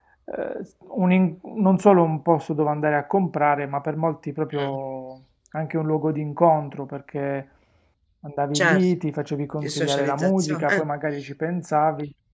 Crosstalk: present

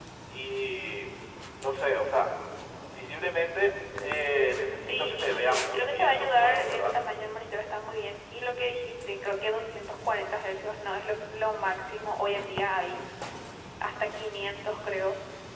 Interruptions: present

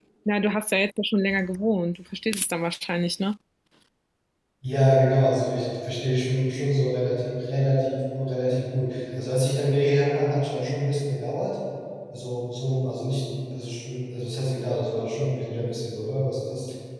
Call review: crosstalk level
none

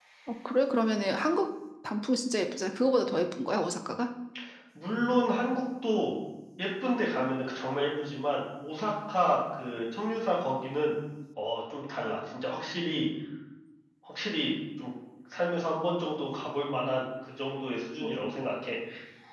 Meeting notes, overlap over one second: none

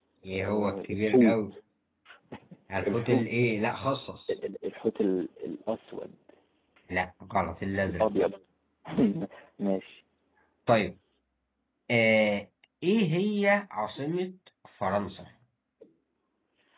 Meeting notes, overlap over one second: present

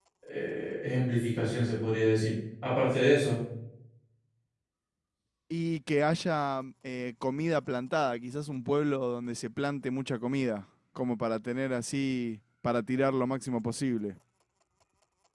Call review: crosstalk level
none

